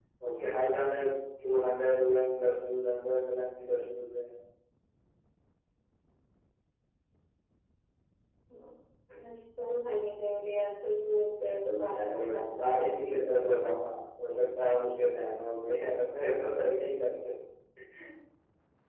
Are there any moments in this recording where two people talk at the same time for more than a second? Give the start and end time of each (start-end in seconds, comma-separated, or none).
12.1-13.7